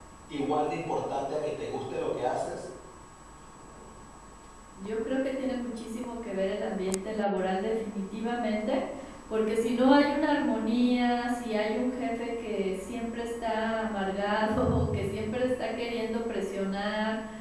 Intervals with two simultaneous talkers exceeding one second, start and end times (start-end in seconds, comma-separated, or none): none